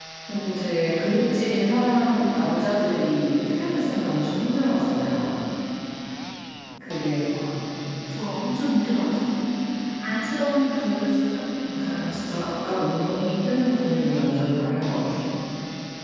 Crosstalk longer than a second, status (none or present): none